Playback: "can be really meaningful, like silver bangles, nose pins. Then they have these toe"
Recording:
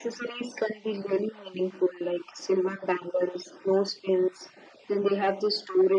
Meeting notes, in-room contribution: none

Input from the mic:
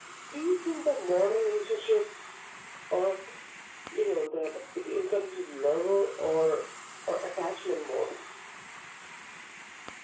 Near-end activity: none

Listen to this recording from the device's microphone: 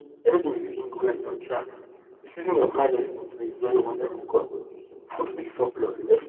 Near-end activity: none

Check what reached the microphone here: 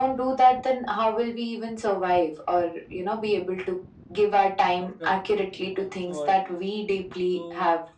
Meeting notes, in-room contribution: present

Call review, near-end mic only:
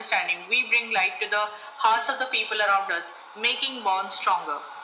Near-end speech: none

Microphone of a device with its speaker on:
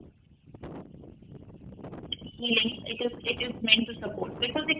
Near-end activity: none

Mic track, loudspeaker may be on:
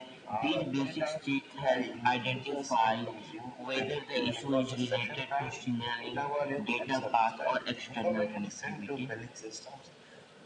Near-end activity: none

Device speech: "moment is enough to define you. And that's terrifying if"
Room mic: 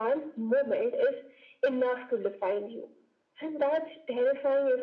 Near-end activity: none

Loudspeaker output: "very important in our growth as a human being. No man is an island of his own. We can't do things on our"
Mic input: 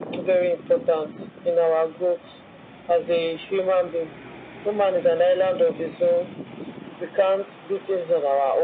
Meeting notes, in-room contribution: none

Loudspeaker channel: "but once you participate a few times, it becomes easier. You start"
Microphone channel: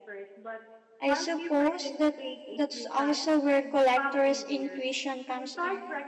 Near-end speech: present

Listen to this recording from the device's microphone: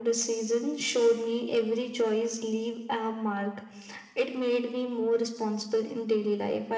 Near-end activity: none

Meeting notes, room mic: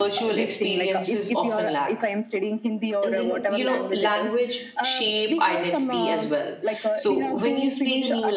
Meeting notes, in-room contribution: present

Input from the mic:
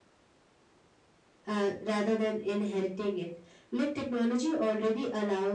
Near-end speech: present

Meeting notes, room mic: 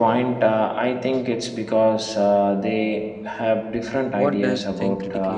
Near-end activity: present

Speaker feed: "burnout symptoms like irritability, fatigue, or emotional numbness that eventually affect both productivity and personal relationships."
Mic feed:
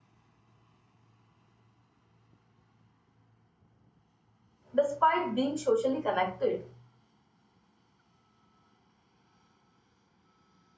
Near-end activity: present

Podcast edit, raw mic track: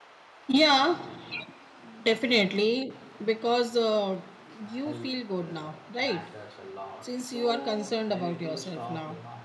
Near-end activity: present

